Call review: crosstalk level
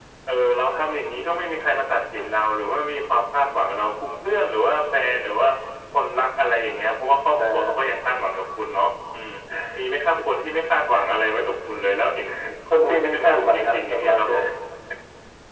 present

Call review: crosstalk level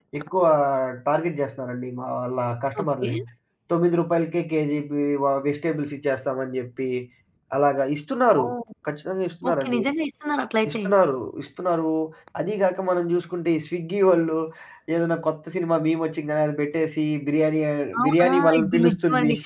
present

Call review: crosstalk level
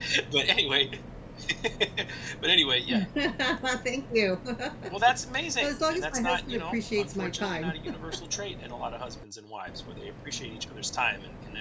present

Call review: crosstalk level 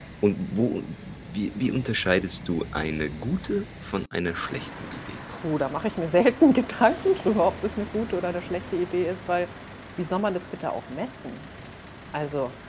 none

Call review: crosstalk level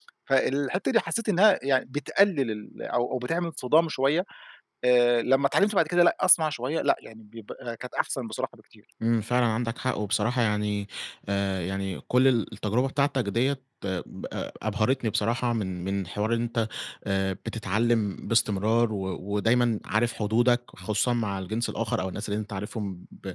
none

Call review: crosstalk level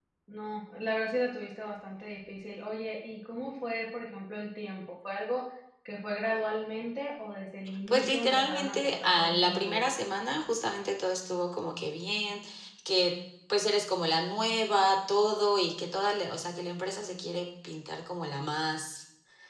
present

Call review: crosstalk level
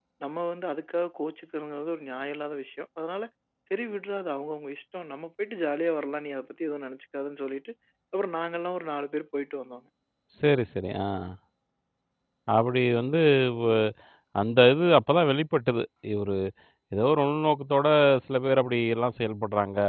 none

